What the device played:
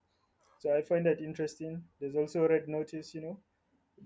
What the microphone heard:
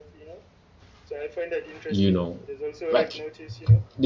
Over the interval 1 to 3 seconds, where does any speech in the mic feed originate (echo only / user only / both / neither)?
both